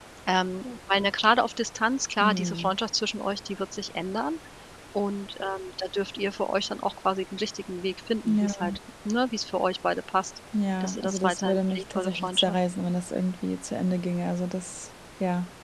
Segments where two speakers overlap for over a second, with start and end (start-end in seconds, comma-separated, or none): 10.8-12.6